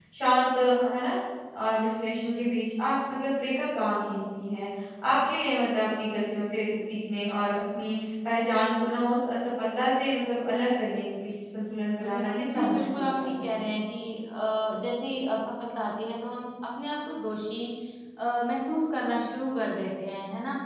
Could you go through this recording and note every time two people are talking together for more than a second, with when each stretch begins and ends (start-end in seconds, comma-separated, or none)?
12.0-13.6